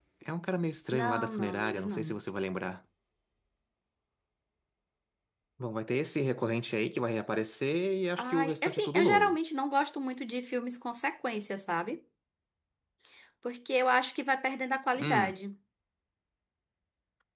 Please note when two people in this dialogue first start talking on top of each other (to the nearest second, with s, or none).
1 s